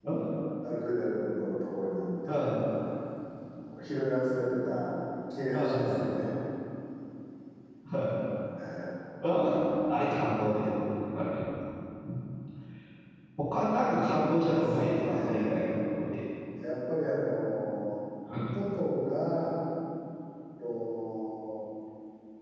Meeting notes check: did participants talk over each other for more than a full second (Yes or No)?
Yes